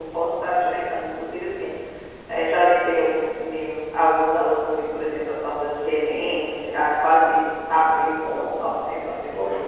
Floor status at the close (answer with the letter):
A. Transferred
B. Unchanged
A